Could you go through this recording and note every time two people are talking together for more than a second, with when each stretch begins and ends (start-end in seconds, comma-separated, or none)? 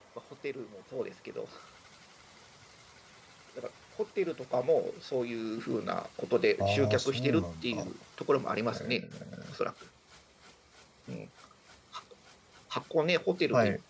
6.6-7.9